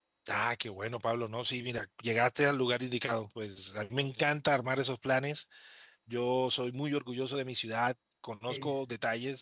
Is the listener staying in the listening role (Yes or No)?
Yes